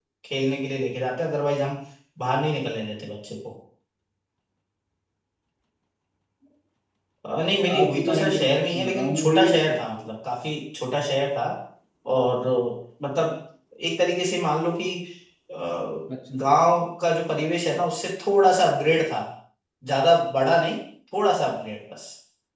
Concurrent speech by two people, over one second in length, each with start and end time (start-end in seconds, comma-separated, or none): 7.5-10.0